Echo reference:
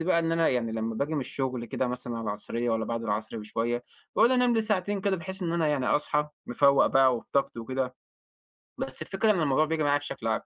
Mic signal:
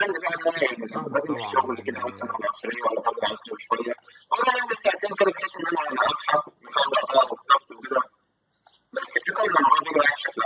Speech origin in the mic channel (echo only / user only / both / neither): both